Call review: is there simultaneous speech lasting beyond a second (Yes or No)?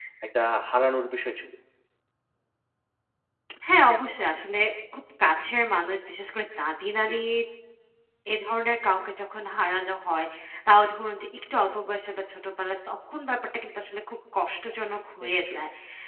No